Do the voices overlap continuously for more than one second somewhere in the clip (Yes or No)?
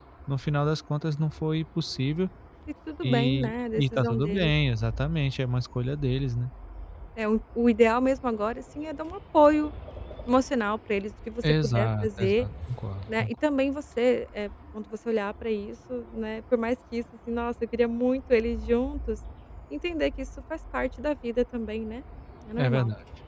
Yes